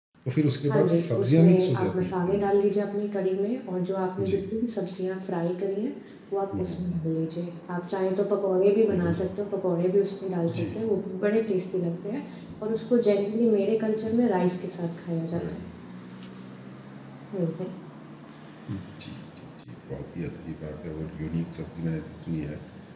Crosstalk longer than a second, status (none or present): present